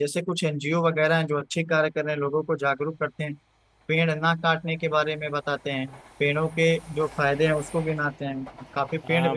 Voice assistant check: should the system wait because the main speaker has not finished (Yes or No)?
No